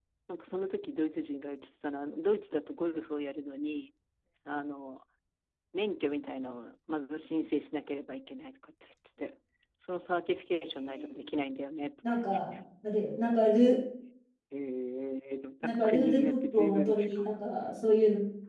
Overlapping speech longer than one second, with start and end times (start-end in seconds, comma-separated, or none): 15.6-17.3